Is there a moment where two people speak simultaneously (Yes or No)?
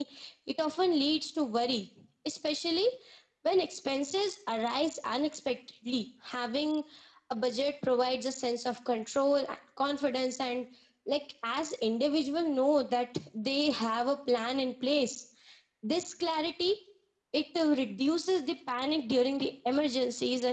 No